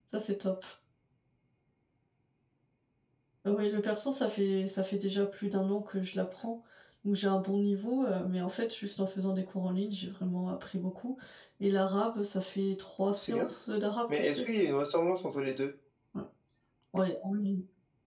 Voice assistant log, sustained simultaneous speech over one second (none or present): none